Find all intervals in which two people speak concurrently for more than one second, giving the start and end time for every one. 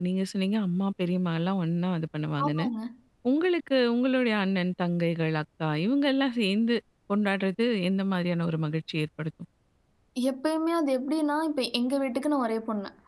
none

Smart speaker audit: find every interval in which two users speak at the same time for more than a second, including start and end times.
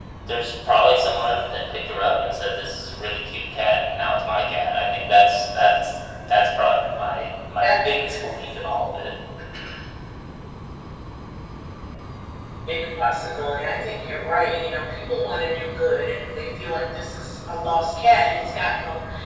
none

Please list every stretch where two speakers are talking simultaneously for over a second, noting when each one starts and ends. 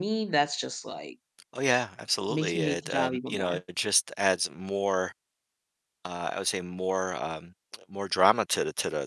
2.3-3.6

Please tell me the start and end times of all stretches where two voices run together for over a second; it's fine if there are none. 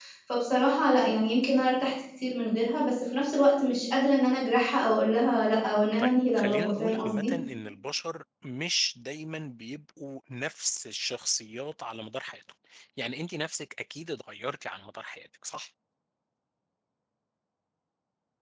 6.0-7.3

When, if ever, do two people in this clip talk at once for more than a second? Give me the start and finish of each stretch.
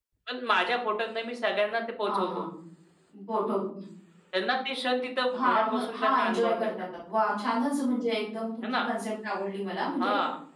5.4-6.7

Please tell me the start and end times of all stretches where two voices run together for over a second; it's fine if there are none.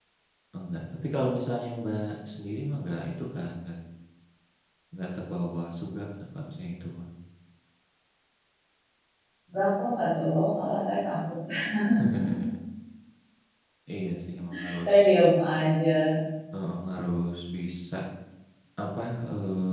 none

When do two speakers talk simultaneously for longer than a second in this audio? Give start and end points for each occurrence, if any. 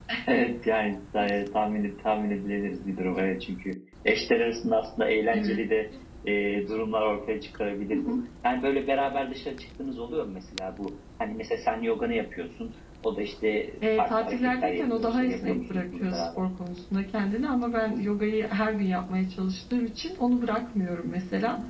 13.8-16.4

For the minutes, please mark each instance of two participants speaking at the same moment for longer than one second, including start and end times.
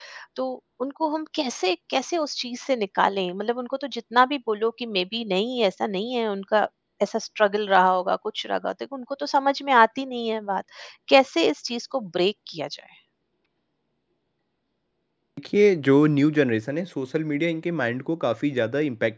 none

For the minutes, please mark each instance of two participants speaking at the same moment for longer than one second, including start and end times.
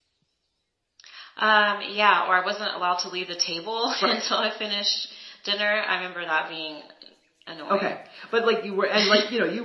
none

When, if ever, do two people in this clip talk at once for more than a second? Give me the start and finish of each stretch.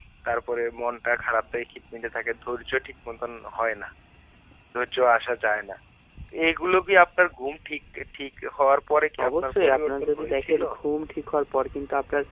9.3-10.6

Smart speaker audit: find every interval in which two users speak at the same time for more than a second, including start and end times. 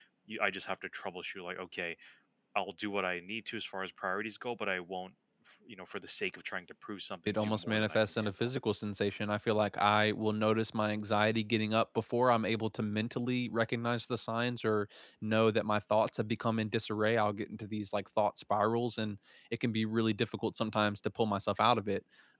7.3-8.5

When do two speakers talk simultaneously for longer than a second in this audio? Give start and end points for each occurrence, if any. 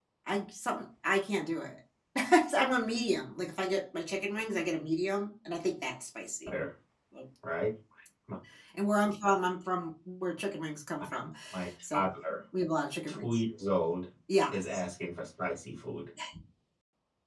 none

